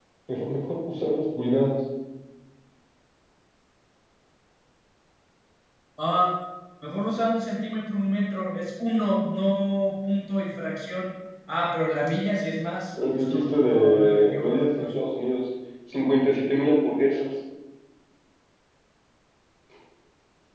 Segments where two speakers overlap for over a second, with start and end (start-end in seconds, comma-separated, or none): 13.1-14.9